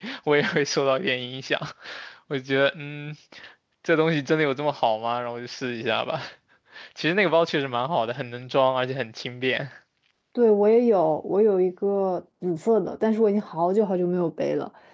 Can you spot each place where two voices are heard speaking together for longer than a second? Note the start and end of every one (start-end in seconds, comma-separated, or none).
none